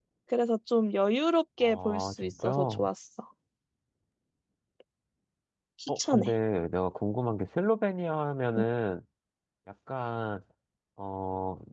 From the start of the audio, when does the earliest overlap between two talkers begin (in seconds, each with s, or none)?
1.6 s